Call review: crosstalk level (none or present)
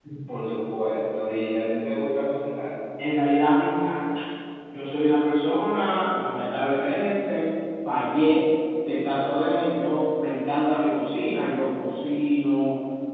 none